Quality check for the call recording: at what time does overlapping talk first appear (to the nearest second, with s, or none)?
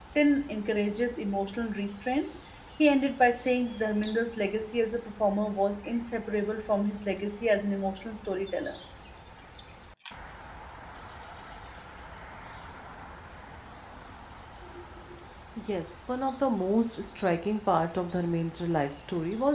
none